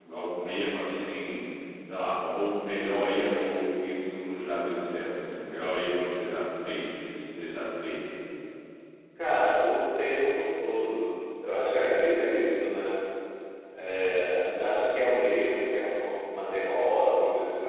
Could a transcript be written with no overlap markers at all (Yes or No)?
Yes